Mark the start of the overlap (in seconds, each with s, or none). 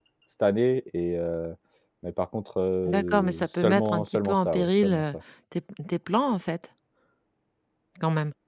2.9 s